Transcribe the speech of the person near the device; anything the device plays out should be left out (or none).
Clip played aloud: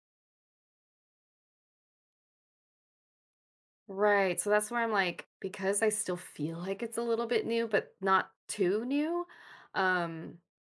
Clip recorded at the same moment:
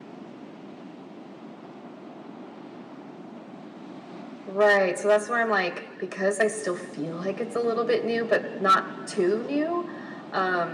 none